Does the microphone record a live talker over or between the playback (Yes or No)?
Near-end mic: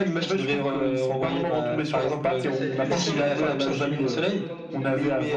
Yes